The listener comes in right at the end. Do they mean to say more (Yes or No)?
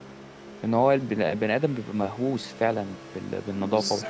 No